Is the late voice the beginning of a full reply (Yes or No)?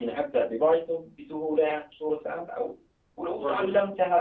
No